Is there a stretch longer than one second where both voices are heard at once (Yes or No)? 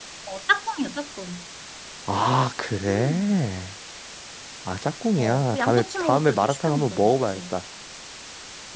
Yes